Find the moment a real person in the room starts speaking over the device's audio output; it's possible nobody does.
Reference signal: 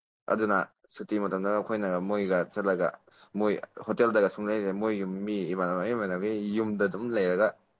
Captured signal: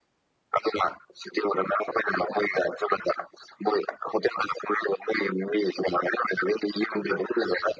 none

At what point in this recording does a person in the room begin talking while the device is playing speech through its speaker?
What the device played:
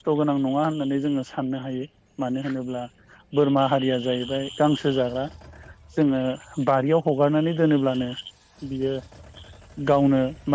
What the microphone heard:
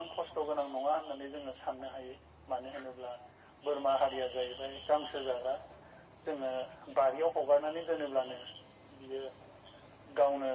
none

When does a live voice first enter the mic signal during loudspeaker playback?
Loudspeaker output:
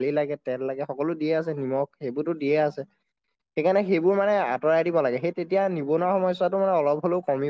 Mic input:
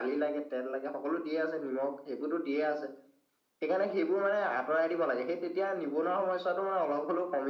none

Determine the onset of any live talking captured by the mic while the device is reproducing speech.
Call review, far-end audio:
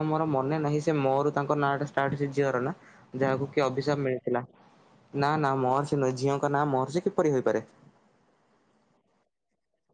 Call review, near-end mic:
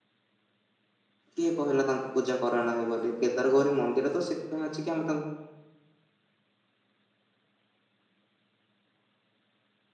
1.3 s

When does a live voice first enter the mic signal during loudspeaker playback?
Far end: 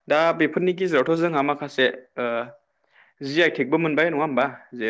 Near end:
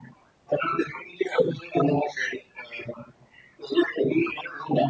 none

